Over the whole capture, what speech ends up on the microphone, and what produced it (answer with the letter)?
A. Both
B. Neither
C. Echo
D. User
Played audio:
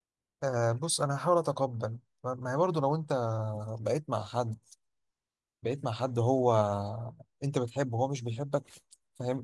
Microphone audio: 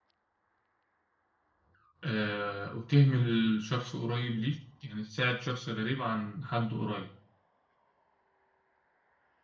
D